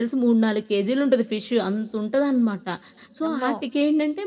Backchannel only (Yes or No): Yes